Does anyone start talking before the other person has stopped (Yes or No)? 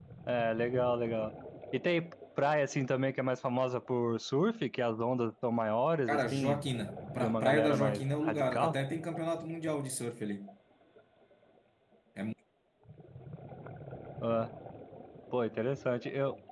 Yes